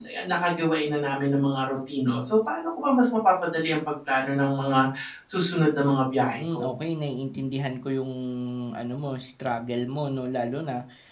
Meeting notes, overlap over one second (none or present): none